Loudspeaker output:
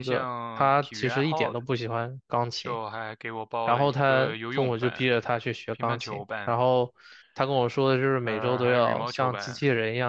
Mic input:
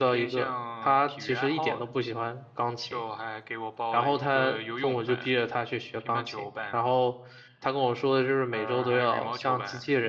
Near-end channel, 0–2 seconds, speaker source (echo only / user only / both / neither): echo only